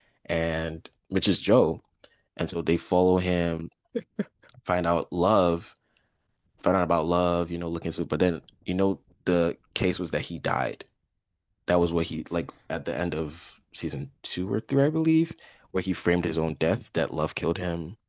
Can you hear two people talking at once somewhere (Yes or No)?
No